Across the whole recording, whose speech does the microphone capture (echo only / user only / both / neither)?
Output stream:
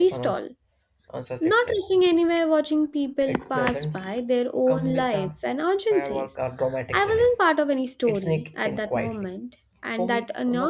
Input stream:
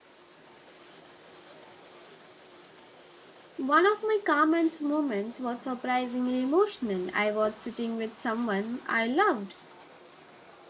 user only